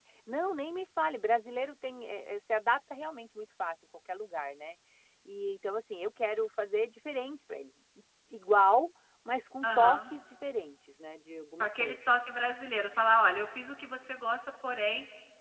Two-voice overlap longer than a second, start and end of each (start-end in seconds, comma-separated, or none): none